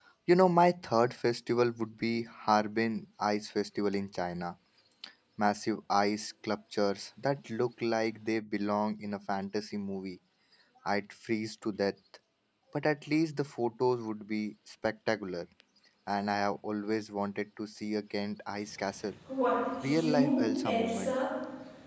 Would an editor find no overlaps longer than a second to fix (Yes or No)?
No